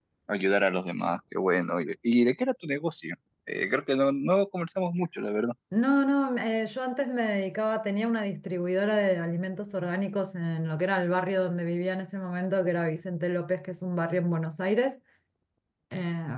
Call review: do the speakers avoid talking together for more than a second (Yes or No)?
Yes